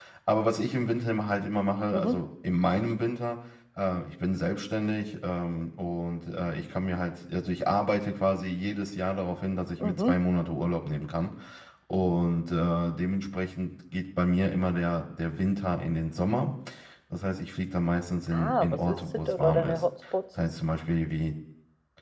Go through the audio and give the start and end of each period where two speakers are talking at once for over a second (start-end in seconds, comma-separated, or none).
18.3-19.8